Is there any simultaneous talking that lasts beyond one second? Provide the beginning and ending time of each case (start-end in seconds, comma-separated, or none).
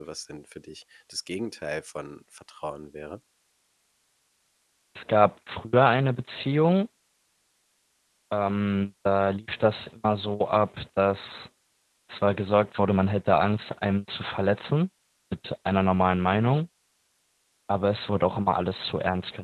none